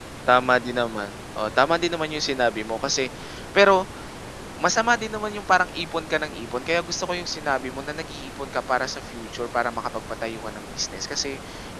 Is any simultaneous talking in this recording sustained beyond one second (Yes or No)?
No